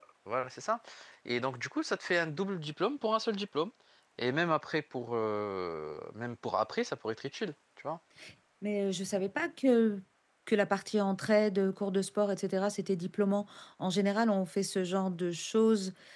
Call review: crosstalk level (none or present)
none